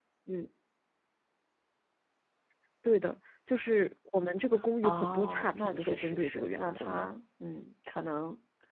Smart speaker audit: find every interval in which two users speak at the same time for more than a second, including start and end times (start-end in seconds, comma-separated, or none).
4.8-7.1